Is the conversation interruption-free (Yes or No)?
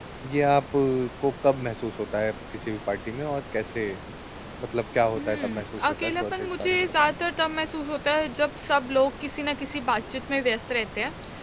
No